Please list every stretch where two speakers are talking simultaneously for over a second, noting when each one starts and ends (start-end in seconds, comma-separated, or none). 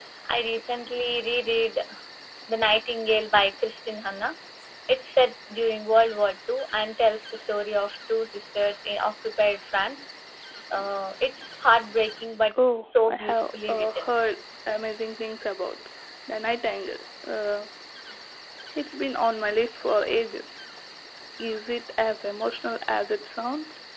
12.8-14.1